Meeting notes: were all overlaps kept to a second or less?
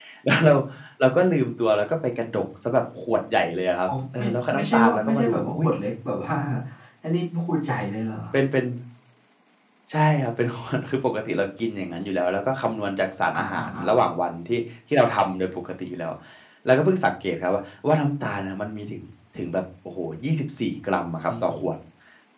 No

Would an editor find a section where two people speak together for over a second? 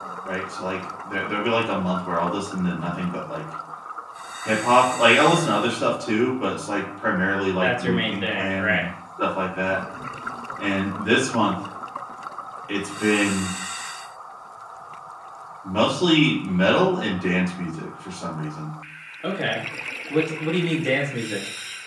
Yes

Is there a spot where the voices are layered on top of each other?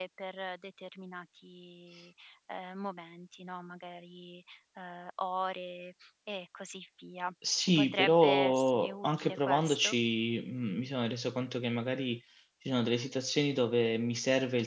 Yes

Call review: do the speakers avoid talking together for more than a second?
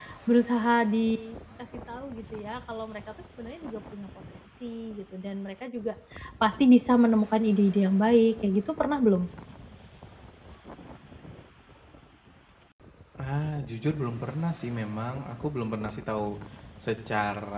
Yes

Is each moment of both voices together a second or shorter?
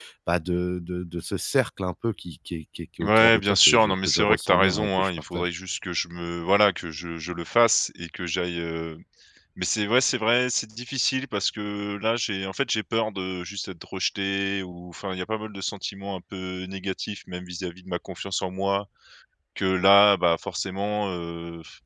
No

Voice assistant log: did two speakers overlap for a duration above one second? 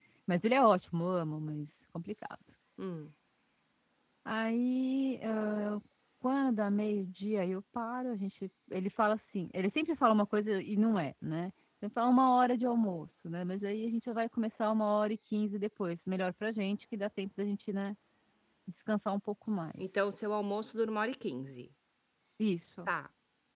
No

